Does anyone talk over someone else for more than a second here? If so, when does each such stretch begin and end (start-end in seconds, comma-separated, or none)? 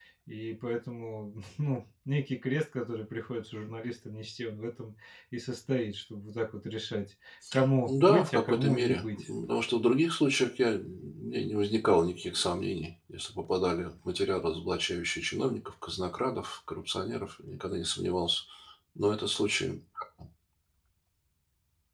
7.9-9.2